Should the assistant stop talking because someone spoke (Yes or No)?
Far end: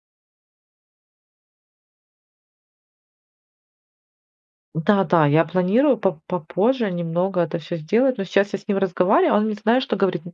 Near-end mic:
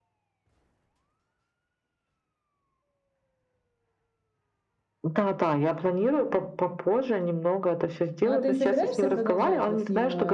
Yes